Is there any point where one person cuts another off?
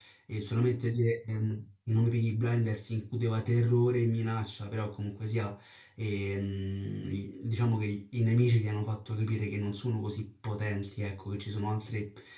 No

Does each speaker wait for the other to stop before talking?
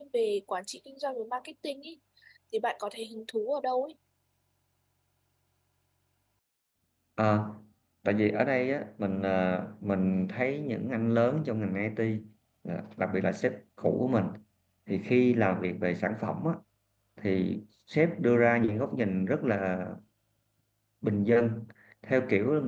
Yes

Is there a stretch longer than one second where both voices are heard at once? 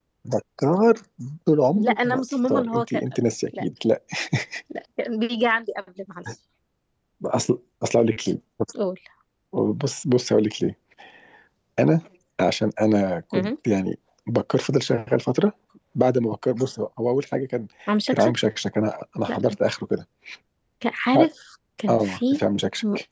Yes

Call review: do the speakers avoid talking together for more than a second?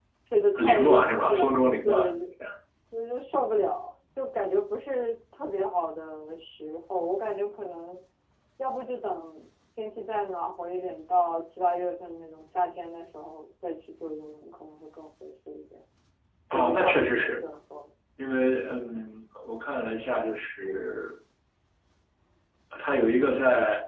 No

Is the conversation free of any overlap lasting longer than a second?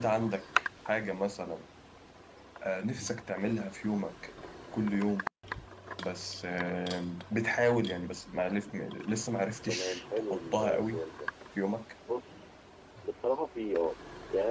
No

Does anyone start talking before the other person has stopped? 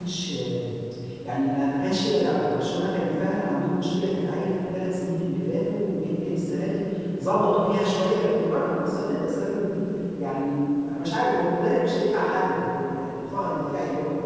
No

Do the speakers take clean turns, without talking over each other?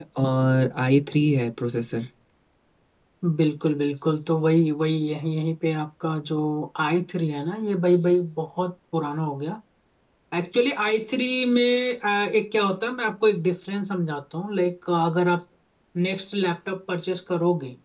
Yes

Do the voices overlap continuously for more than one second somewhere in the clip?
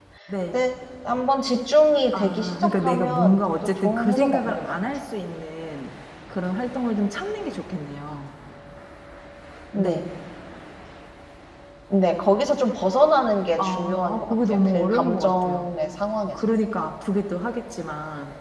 Yes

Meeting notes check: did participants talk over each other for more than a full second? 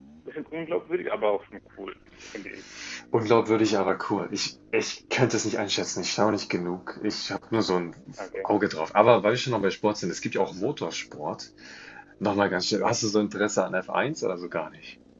No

